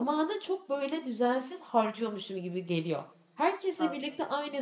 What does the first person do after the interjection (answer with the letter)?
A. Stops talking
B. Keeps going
B